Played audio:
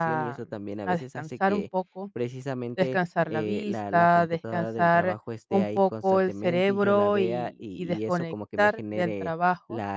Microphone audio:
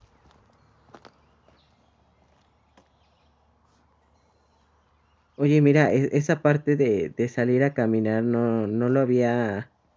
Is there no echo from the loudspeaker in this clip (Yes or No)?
Yes